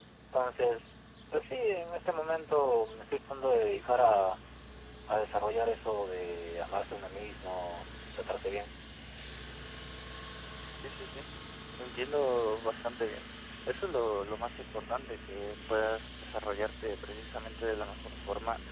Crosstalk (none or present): none